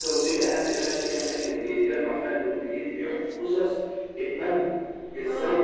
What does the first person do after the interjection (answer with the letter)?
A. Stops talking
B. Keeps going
B